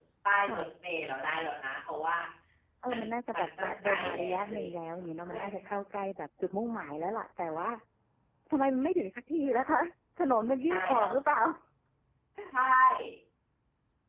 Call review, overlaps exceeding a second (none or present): present